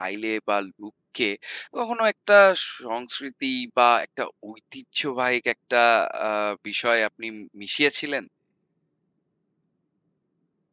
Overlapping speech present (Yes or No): No